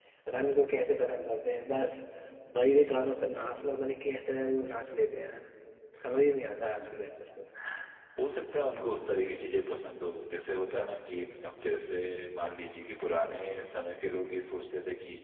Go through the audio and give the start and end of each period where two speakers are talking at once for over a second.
none

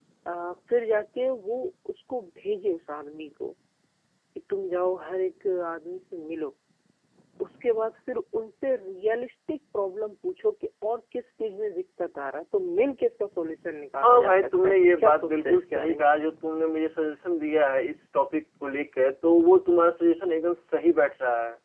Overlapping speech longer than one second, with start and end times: 14.0-16.1

